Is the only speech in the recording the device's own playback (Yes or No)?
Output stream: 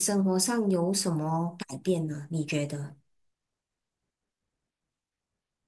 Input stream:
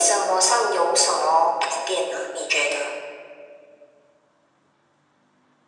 Yes